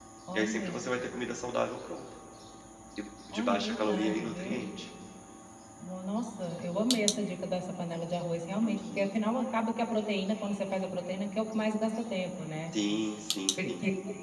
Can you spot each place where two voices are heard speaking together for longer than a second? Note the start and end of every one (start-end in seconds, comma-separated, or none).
3.3-4.6